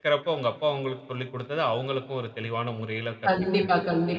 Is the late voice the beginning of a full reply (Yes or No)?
Yes